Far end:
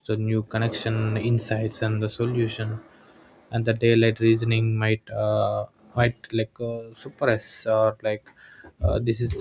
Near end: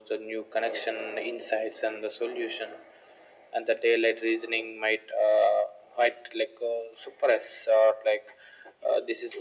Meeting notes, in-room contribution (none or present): none